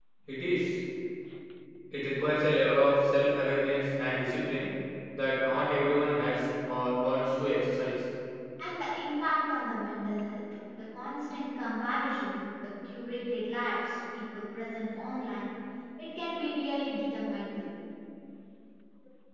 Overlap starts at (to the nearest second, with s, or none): none